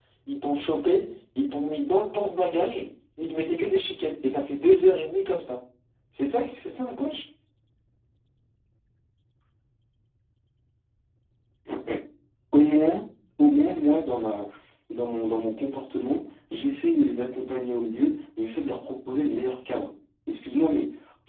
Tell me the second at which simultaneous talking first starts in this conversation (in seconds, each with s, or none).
none